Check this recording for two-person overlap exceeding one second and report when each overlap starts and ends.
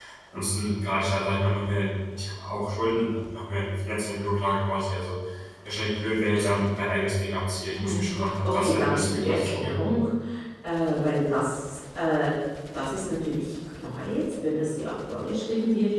8.5-9.8

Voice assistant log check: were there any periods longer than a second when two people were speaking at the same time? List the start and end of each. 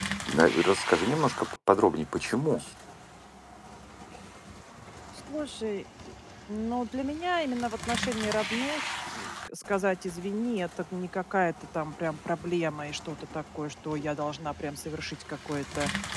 none

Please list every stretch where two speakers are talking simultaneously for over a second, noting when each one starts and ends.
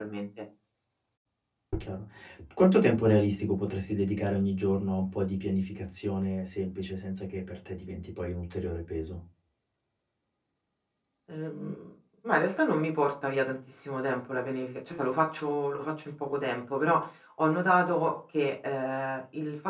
none

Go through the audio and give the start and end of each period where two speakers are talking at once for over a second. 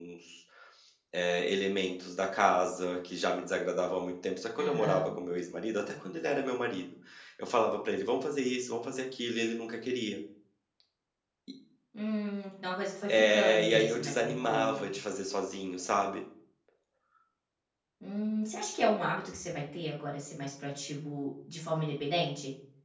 13.1-14.9

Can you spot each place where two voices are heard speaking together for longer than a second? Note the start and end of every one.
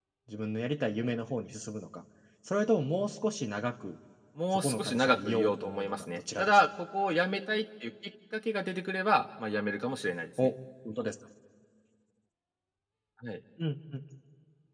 4.5-6.7

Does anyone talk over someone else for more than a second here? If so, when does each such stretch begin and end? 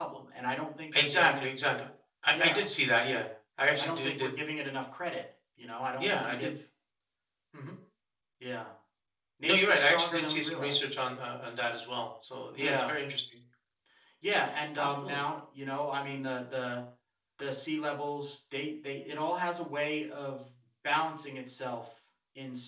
9.4-10.8

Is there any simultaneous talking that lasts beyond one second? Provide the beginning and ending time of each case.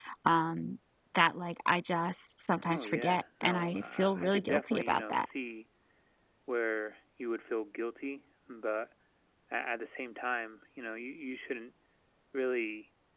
2.6-5.2

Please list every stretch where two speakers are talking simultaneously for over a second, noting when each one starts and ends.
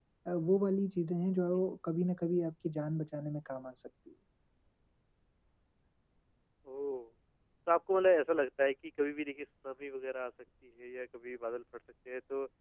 none

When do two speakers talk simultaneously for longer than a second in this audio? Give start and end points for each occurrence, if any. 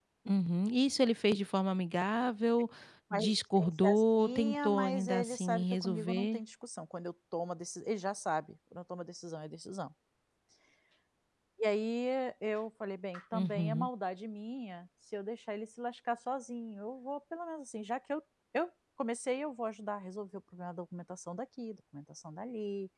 3.1-6.4

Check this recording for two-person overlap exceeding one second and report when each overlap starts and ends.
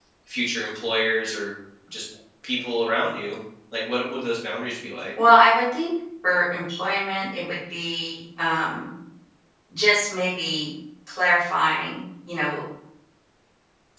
none

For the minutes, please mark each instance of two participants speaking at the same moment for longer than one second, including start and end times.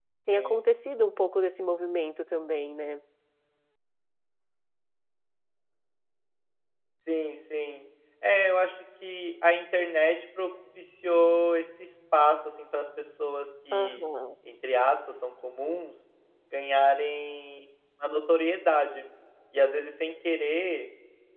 none

